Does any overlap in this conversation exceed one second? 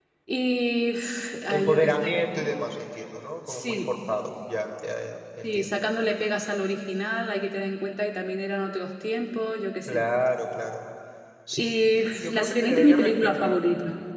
Yes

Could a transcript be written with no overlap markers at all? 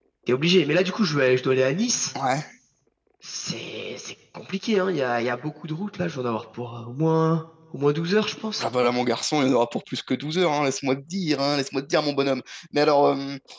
Yes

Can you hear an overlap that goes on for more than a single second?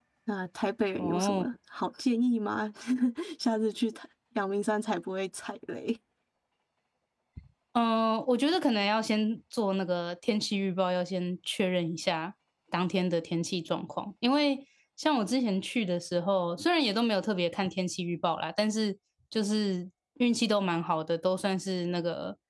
No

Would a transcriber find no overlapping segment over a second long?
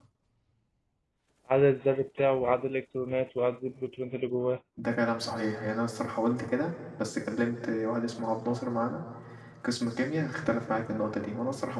Yes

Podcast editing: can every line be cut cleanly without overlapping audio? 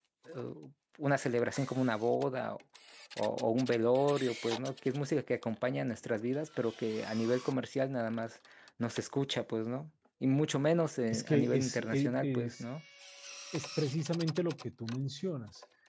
No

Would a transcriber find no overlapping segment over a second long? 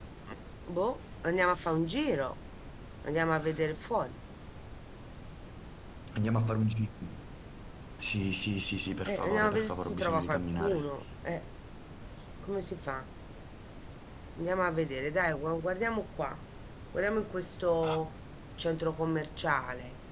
No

